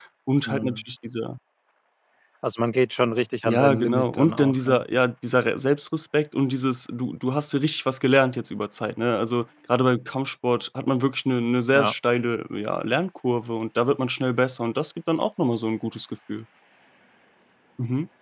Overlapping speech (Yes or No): Yes